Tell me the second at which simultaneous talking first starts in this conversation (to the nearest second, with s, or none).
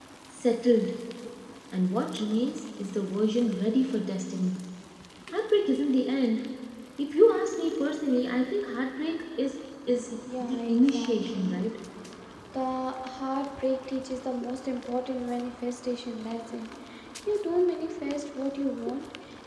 10 s